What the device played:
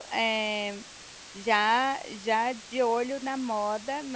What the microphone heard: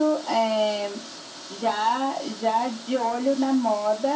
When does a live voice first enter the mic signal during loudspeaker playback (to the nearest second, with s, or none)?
none